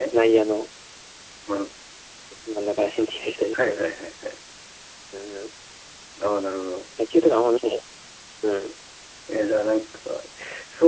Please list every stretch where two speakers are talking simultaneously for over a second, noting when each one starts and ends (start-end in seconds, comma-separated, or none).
none